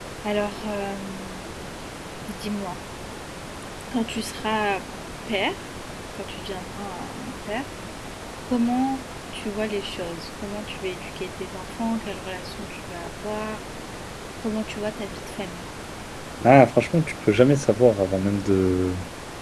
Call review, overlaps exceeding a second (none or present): none